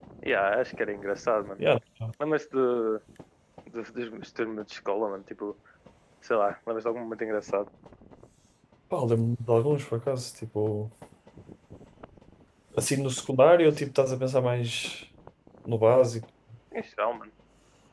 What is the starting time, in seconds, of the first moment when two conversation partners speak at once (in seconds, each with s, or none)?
none